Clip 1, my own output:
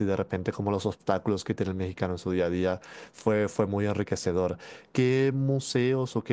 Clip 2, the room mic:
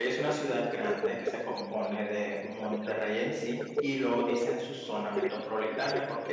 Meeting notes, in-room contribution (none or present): present